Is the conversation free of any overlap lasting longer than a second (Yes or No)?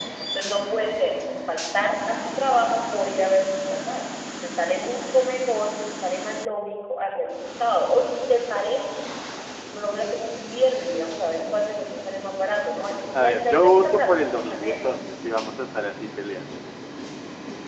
No